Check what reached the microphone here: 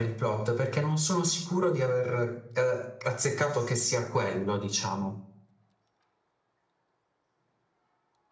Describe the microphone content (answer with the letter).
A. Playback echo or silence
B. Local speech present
A